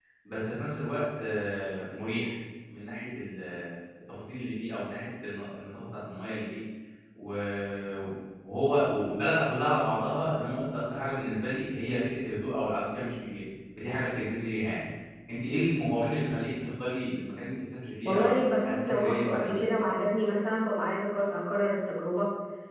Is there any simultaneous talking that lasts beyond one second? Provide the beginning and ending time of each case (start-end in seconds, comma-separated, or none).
18.1-19.8